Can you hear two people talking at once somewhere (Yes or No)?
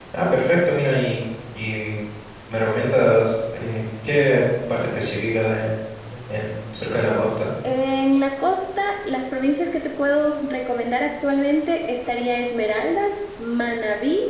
No